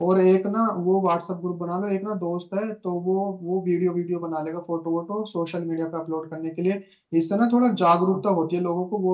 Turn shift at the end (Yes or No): No